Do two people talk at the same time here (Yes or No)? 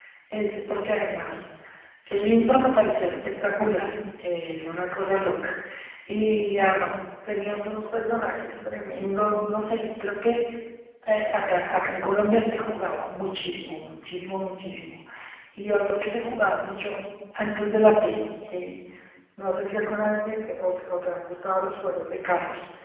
No